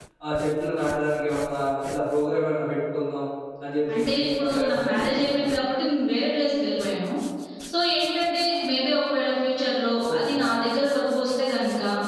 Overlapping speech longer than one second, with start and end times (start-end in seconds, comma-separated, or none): 3.9-5.5